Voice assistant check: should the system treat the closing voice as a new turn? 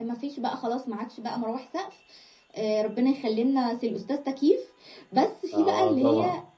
No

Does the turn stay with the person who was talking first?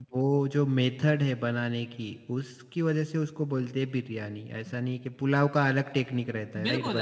No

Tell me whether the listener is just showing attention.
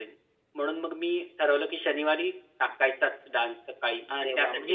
No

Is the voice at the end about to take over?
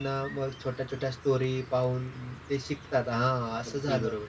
Yes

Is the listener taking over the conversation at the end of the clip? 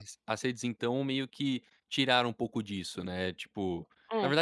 No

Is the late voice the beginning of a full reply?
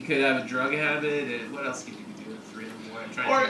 Yes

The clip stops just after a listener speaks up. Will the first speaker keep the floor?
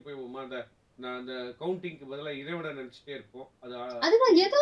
No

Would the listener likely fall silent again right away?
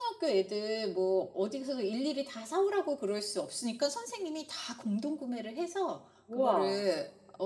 Yes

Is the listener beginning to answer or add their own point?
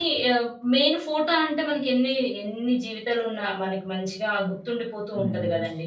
Yes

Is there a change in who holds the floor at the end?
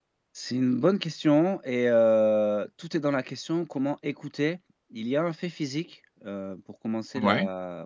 No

